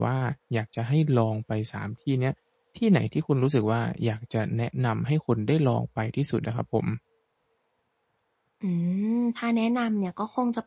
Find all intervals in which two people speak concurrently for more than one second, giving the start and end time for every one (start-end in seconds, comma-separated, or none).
none